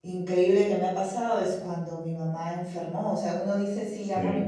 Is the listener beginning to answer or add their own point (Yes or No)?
No